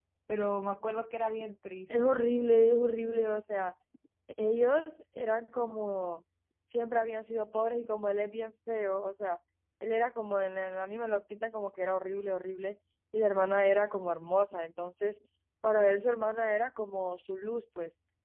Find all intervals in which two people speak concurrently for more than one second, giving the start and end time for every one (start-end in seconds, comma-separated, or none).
none